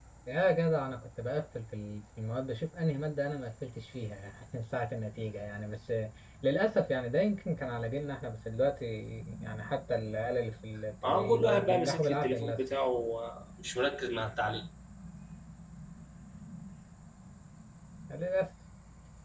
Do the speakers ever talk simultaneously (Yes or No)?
Yes